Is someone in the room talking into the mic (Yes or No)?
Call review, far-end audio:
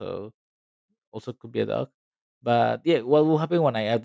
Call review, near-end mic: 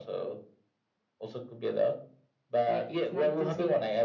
Yes